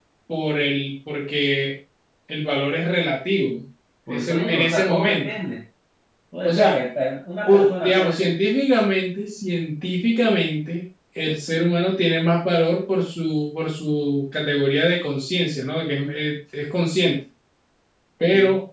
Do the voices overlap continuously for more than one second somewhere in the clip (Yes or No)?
Yes